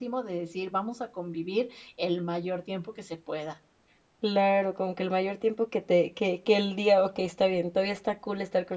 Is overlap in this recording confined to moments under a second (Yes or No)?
Yes